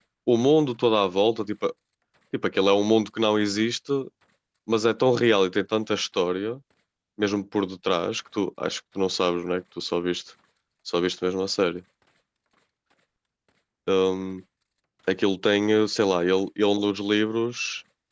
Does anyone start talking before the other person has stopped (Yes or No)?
No